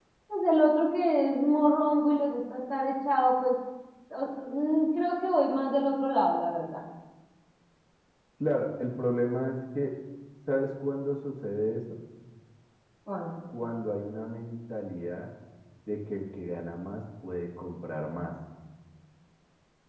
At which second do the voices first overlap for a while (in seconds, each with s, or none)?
none